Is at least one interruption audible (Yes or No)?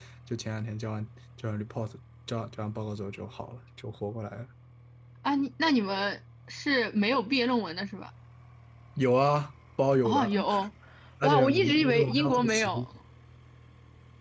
Yes